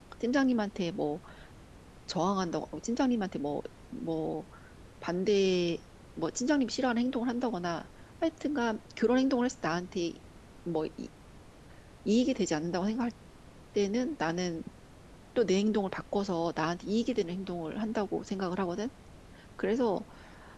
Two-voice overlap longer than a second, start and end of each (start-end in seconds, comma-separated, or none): none